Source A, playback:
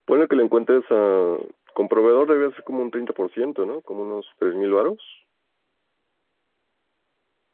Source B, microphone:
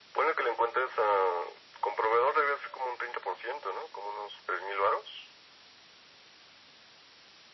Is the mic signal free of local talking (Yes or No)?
Yes